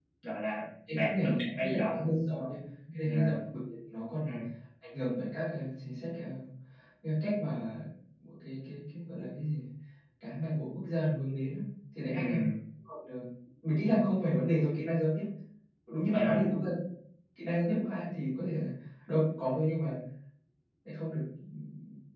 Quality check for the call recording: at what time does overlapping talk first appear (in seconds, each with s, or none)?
0.9 s